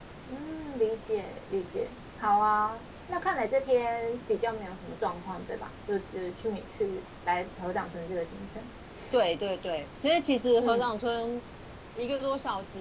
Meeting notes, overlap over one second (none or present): none